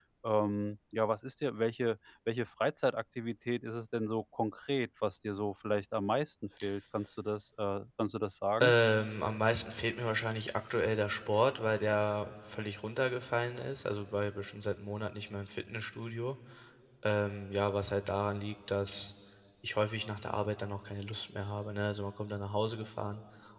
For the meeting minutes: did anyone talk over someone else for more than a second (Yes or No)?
No